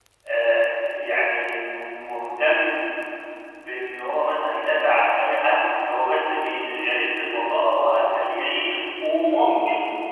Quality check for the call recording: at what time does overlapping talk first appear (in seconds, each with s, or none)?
none